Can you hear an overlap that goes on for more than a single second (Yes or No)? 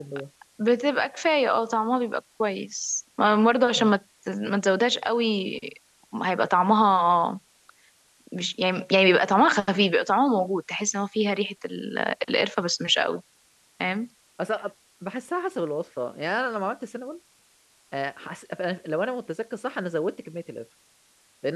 No